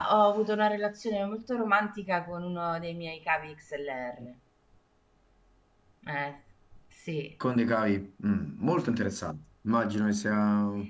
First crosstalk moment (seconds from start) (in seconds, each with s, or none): none